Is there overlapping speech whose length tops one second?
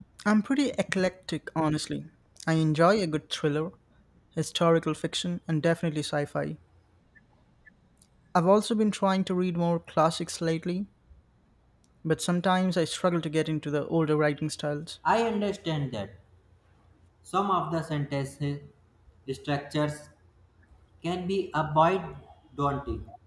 No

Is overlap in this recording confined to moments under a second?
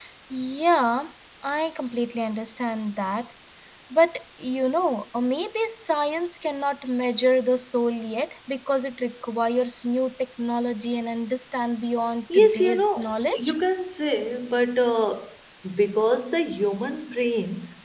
No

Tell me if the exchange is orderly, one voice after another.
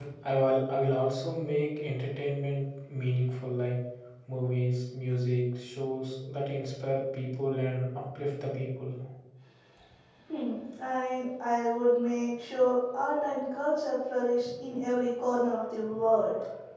Yes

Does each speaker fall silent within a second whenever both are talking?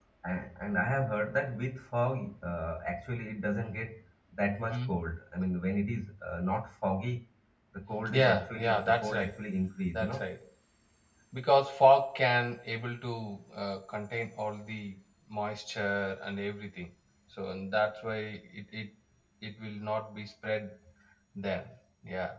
No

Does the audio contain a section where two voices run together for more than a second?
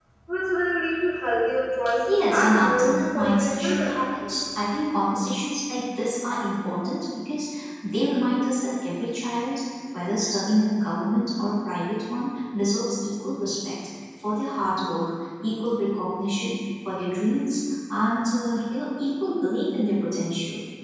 Yes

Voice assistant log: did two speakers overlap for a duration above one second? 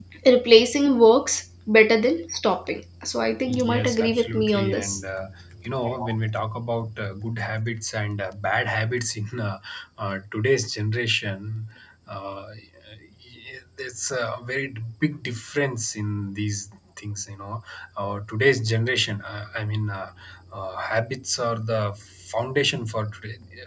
Yes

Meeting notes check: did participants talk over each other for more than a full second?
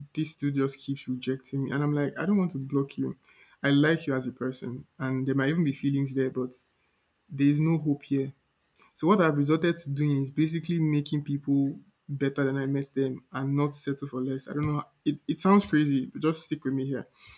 No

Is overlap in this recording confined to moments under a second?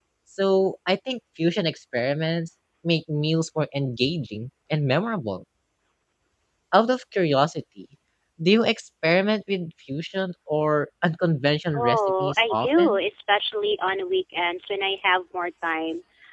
No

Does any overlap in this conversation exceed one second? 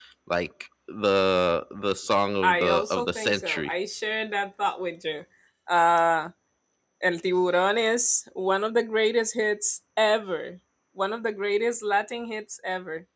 Yes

